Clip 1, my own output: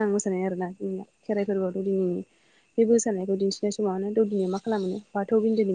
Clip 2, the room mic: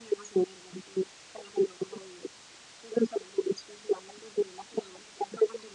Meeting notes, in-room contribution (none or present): none